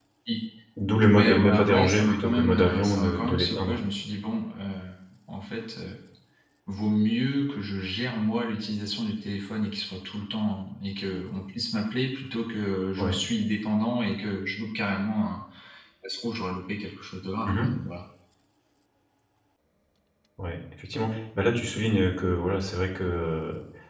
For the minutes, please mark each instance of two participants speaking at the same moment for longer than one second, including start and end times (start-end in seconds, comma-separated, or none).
1.1-3.8